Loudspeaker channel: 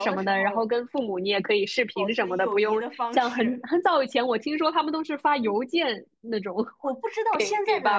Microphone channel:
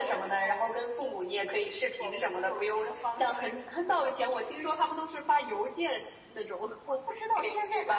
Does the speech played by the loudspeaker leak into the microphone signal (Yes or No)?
Yes